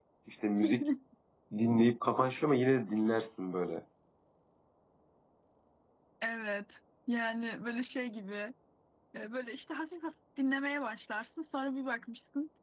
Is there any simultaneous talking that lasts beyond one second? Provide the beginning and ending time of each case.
none

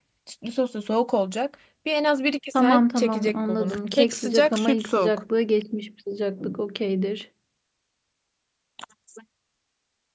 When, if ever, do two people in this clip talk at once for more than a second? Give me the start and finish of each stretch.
2.5-5.2

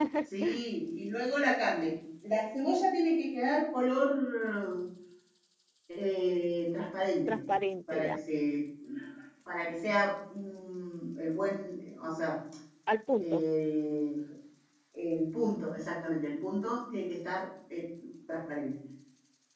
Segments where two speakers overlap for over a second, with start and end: none

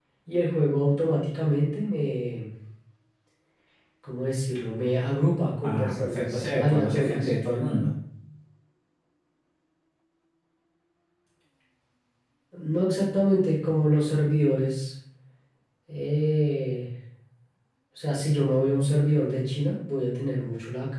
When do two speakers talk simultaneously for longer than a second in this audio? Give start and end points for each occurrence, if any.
5.6-7.3

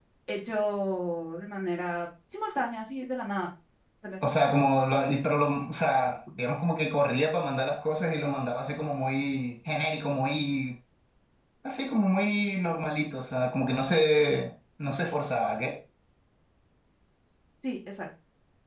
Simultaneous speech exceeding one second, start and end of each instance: none

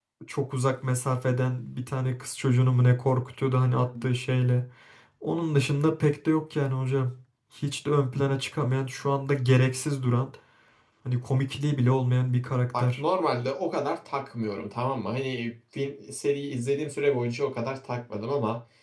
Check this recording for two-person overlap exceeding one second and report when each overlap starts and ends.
none

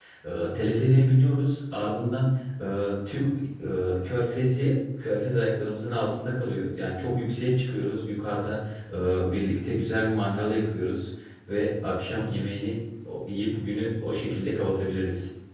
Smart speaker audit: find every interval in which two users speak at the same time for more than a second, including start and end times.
none

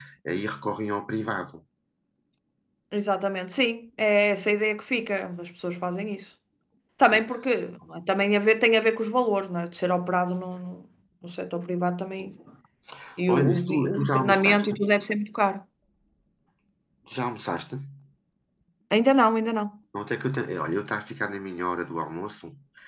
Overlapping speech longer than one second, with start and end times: 13.3-14.7

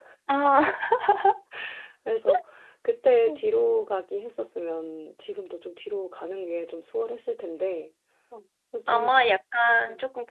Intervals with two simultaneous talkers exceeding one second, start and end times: none

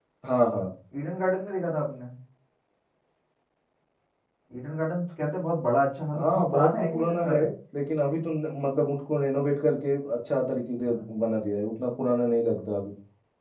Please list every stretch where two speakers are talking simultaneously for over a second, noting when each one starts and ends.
6.2-7.4

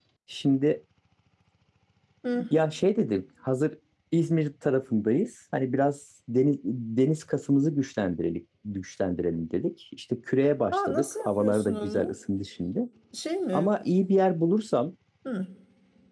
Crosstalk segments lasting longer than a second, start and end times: 10.7-12.1

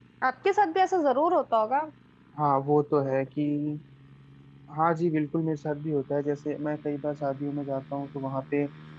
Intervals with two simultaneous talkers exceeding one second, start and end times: none

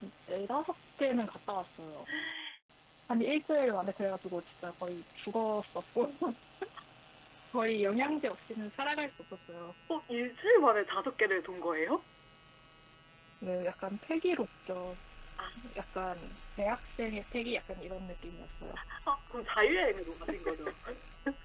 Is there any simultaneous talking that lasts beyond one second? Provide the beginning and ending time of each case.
none

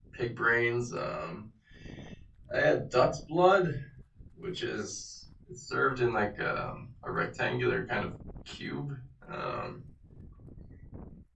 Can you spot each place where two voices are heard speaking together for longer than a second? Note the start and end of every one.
none

